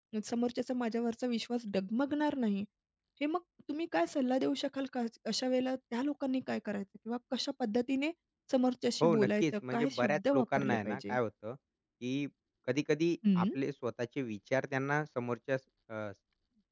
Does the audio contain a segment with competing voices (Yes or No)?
Yes